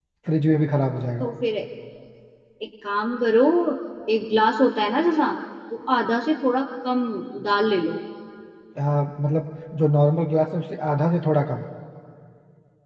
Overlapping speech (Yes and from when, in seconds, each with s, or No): No